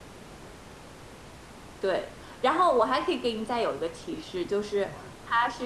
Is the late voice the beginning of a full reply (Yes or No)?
No